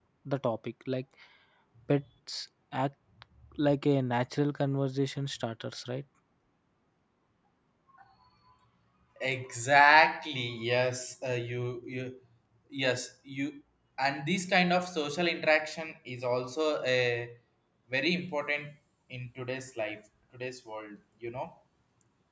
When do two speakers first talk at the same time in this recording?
none

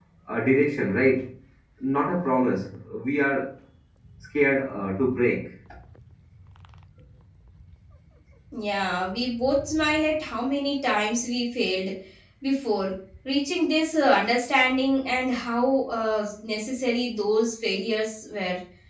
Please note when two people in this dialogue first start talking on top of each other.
none

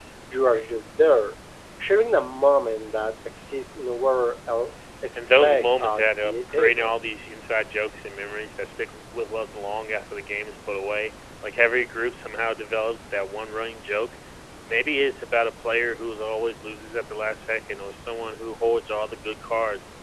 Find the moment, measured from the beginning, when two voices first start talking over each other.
5.2 s

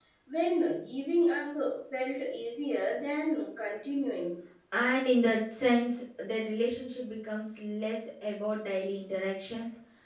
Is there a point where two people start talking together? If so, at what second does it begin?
none

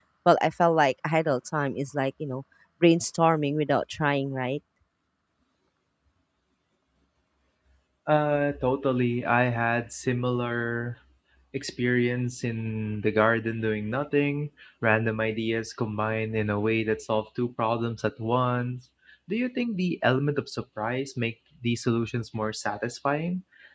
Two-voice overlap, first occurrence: none

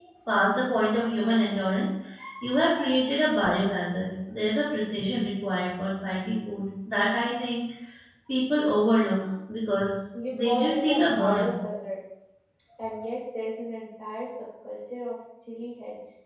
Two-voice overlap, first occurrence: 10.1 s

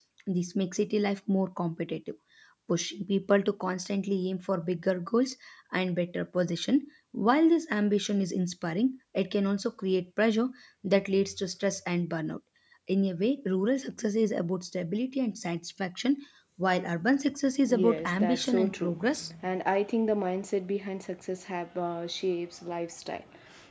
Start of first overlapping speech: 17.7 s

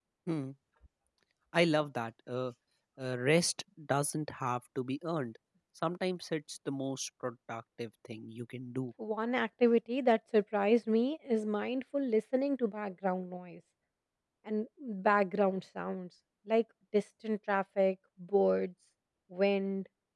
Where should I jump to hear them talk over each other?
none

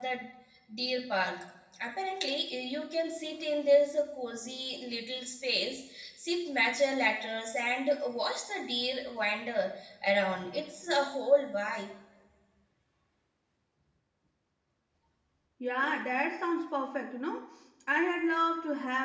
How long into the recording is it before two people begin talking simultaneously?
none

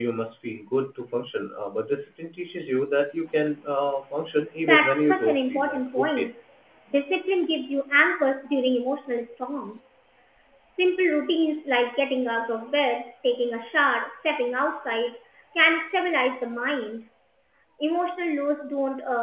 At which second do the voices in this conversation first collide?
4.6 s

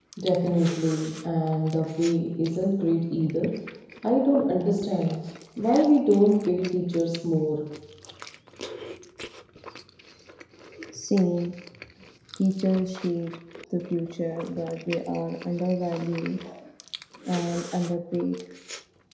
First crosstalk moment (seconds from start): none

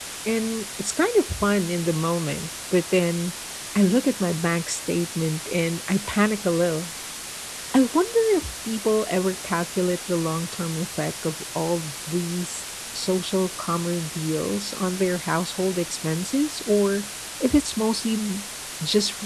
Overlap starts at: none

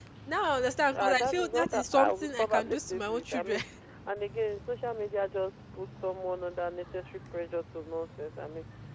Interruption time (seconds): 0.9 s

